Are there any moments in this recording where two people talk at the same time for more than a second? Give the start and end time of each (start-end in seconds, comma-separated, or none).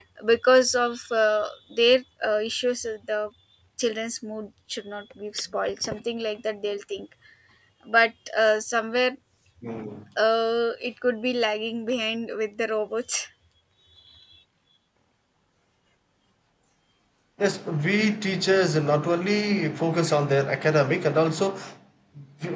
none